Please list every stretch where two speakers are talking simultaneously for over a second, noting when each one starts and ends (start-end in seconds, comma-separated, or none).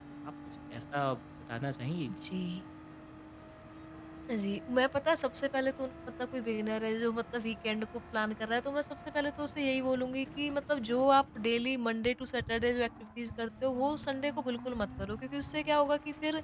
none